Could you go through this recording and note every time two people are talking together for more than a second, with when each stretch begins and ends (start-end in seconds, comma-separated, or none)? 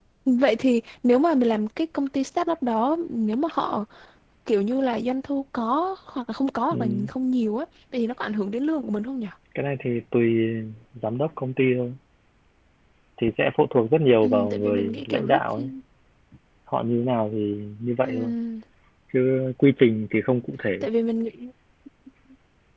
14.2-15.7